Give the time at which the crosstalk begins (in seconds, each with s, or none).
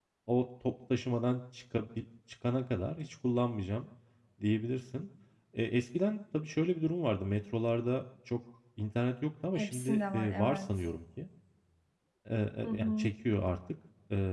9.6 s